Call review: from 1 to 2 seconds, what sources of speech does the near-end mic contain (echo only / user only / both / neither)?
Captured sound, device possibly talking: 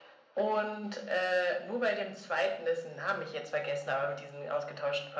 echo only